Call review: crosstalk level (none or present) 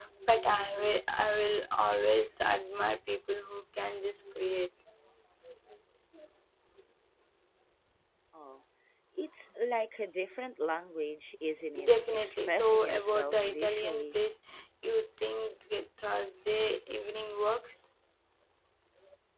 present